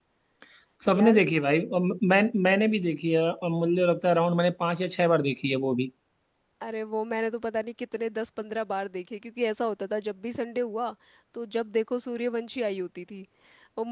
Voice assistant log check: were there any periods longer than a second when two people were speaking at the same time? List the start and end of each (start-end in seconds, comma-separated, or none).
none